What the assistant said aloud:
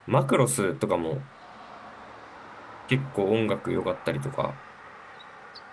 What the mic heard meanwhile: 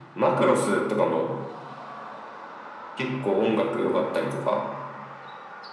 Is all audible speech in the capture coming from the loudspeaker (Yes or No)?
Yes